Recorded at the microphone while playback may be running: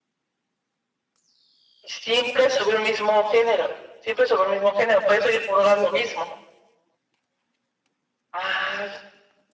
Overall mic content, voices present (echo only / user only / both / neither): echo only